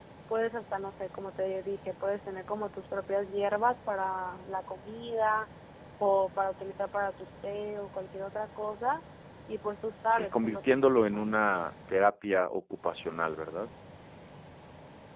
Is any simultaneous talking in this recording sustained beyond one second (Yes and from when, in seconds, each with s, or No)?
Yes, from 10.1 s